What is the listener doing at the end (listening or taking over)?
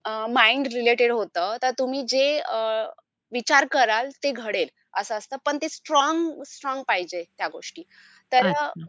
listening